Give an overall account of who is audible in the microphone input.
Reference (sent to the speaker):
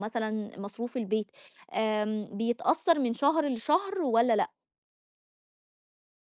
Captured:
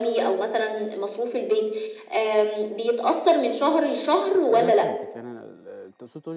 both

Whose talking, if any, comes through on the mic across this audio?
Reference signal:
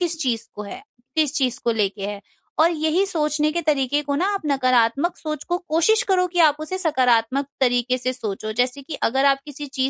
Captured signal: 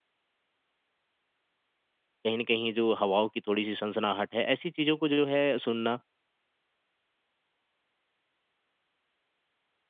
user only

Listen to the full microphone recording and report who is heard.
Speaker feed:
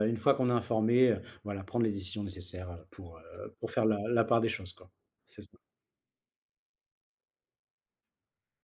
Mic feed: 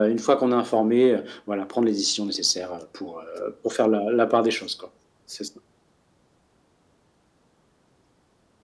echo only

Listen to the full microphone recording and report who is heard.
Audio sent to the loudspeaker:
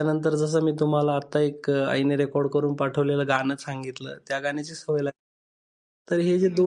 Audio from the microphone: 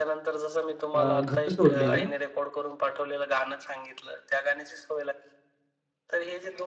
both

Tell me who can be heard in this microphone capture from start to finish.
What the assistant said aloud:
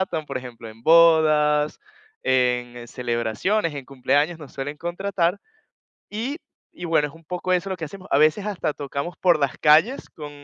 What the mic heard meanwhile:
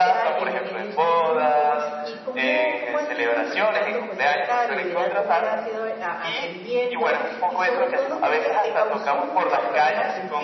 both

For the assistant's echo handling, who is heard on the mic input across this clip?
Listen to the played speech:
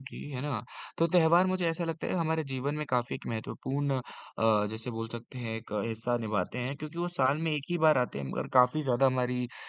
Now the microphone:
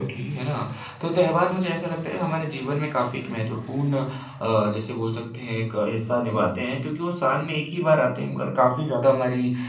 echo only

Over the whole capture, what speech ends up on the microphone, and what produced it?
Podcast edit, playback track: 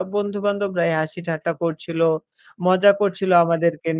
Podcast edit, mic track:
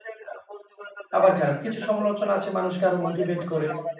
both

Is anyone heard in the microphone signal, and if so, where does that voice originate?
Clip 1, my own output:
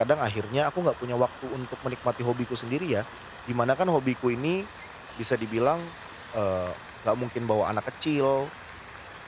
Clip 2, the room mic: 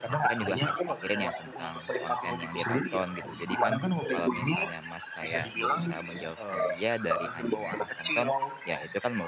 both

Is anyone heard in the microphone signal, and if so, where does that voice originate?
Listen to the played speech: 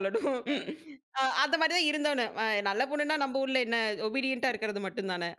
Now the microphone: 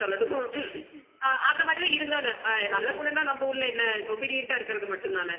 both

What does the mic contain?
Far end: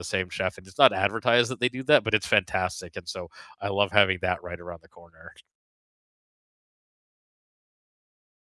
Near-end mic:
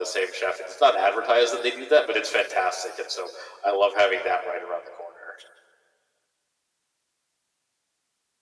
echo only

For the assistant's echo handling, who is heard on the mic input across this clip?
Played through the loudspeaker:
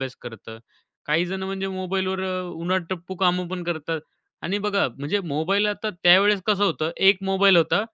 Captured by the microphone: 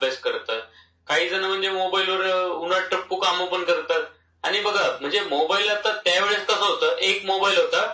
echo only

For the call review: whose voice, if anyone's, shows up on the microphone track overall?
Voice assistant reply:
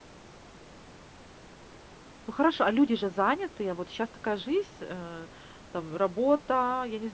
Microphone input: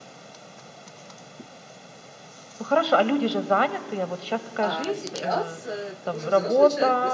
both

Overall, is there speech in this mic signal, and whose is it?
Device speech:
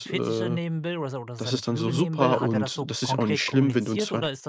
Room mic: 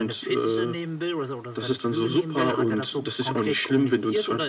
echo only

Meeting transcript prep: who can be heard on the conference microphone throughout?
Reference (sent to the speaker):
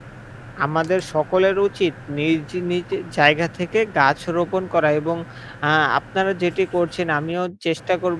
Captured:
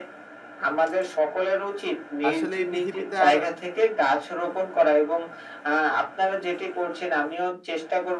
both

